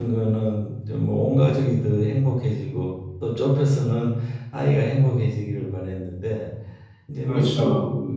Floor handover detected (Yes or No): No